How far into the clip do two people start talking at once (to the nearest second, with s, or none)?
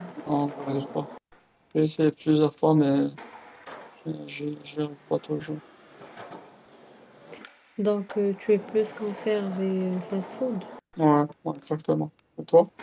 none